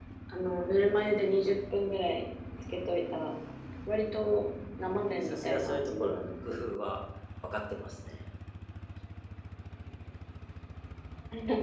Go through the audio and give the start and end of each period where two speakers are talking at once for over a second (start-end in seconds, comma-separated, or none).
5.2-6.6